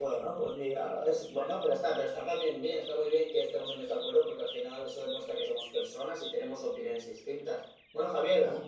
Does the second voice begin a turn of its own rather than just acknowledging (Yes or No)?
No